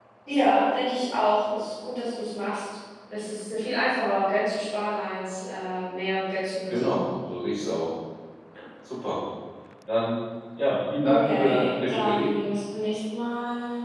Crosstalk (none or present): present